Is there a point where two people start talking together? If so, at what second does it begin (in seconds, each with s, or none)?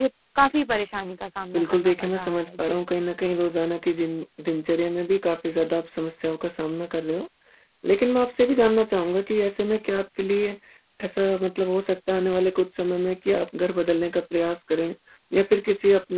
1.5 s